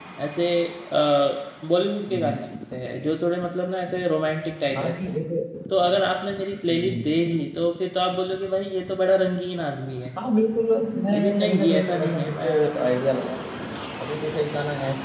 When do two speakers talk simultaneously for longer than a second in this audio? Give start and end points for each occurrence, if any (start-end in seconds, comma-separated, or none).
11.1-12.5